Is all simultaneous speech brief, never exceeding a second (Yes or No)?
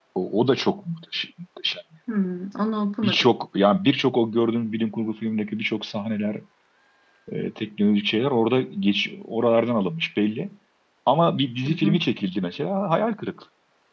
Yes